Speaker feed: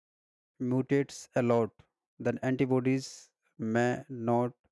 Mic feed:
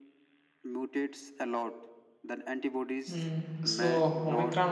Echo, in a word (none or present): present